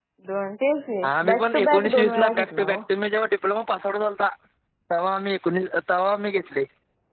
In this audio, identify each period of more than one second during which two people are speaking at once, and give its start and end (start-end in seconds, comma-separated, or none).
1.3-2.8